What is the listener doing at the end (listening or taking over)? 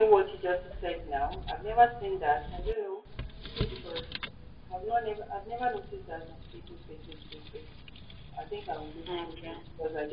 listening